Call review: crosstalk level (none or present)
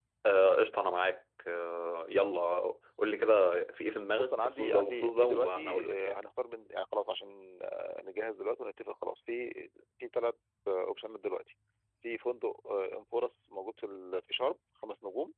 present